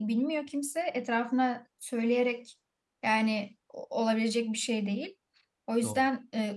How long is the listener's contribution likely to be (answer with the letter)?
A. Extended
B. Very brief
B